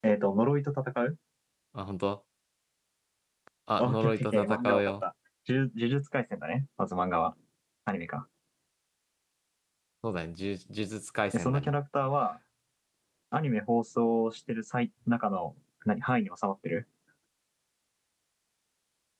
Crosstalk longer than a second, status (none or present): present